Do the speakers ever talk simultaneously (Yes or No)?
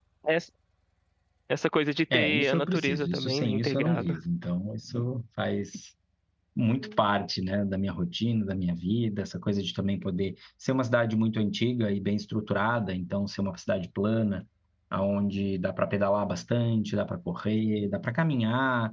Yes